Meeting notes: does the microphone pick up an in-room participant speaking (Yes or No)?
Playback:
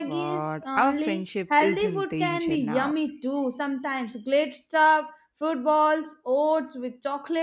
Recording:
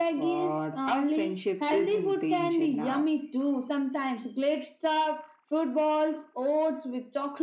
No